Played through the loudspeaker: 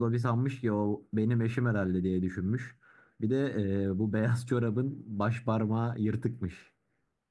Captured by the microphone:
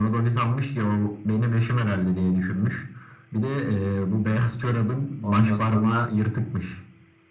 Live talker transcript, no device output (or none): Ondan sonra